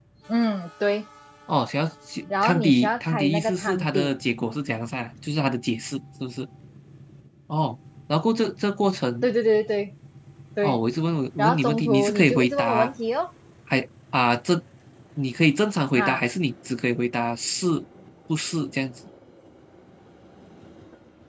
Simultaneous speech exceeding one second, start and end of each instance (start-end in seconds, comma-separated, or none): 2.4-4.1, 11.4-12.9